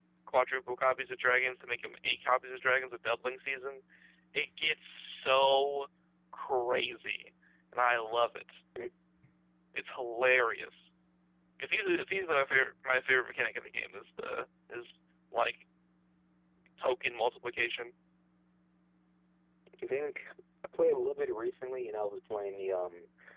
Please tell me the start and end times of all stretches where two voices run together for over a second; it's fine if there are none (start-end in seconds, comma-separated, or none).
none